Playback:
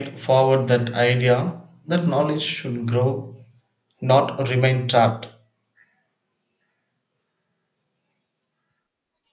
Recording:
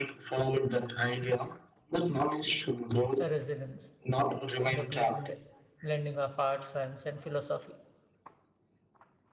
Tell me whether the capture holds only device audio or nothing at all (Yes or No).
No